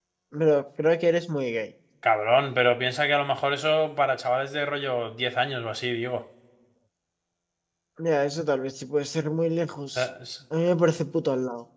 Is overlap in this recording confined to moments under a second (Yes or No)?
Yes